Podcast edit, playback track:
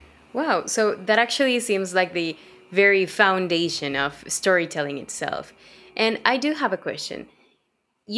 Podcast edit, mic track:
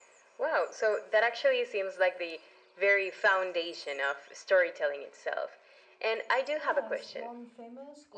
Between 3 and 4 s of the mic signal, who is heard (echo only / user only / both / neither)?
echo only